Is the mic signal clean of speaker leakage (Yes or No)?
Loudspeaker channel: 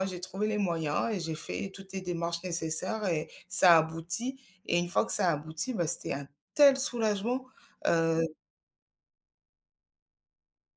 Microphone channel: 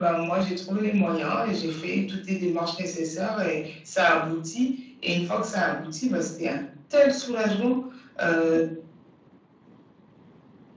No